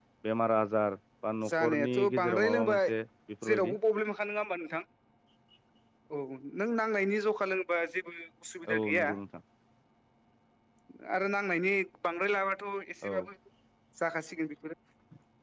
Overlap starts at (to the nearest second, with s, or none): 1 s